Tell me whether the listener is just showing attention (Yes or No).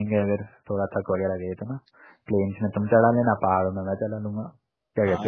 No